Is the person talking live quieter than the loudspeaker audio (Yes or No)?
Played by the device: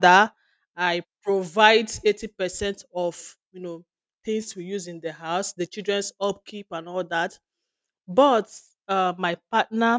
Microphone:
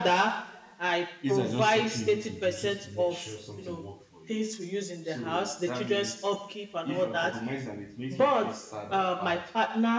Yes